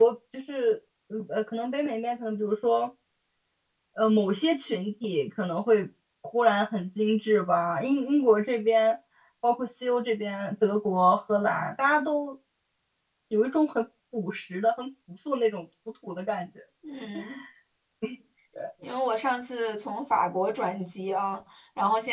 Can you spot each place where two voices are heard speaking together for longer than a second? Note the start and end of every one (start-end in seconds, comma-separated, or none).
none